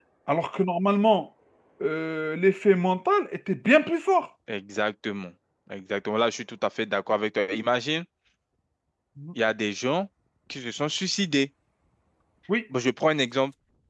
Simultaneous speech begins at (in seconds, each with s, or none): none